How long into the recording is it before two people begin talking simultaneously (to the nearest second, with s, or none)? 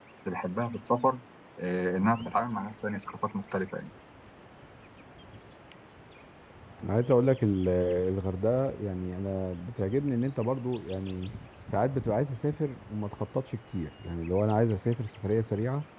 none